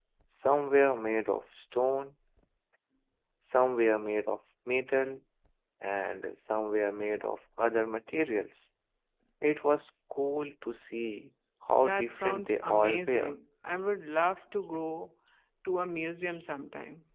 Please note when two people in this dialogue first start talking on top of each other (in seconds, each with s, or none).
11.8 s